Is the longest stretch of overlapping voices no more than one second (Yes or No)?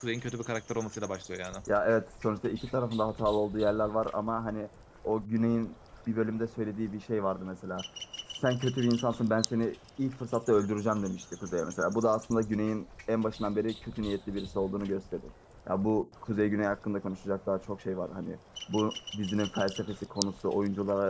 Yes